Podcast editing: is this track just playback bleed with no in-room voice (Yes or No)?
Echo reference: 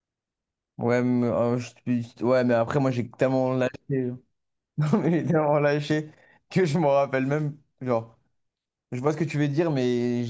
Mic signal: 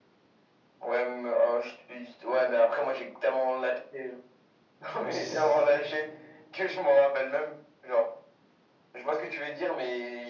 No